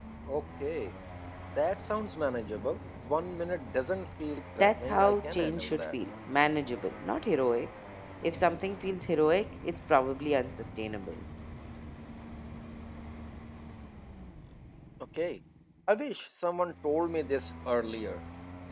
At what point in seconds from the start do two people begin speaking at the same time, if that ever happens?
4.6 s

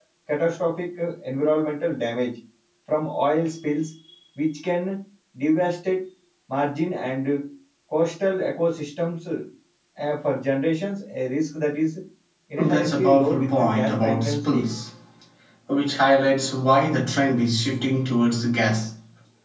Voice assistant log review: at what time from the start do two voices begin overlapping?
12.6 s

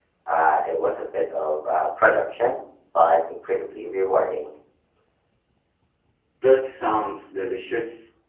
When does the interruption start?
none

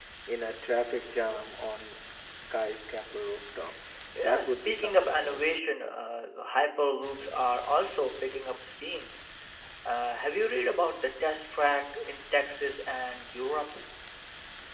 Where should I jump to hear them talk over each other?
4.2 s

